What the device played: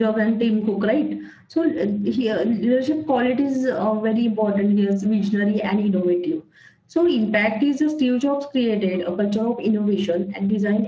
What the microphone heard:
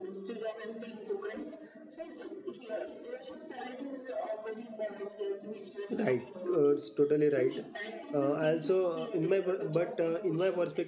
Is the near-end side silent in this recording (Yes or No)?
No